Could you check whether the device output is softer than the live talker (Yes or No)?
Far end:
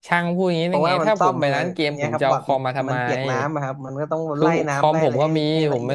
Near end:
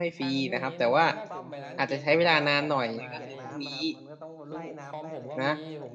Yes